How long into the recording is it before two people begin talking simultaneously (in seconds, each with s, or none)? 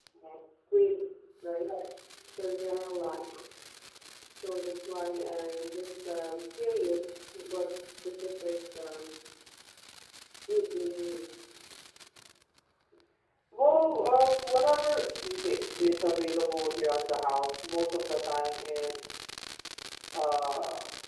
none